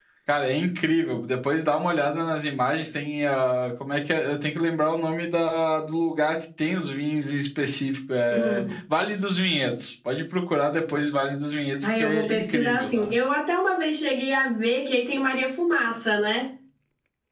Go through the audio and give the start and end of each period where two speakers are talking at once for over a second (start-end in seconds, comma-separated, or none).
11.8-13.1